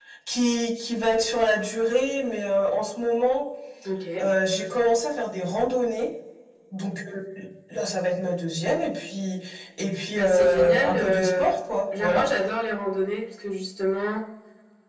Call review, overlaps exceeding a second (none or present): present